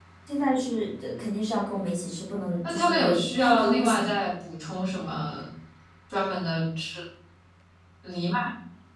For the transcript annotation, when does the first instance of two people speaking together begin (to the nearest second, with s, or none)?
3 s